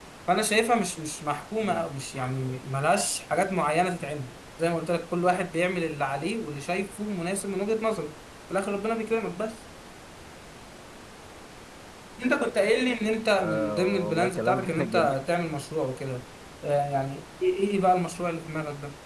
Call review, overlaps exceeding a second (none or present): present